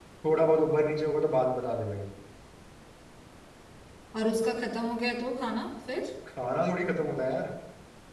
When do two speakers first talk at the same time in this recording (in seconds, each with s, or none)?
none